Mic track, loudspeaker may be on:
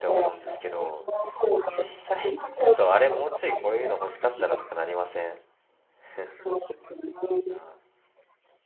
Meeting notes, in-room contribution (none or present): present